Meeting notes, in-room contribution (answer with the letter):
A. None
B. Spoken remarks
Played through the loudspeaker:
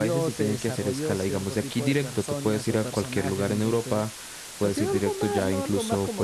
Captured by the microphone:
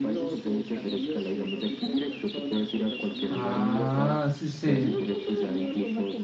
B